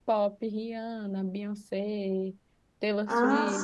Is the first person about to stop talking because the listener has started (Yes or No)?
No